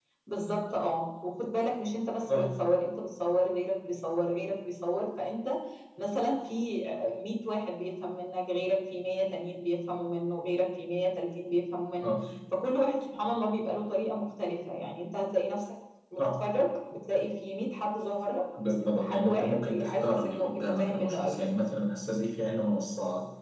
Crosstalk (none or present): present